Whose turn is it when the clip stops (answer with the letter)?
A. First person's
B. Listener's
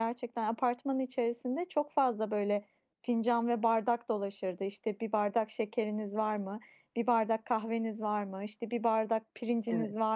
A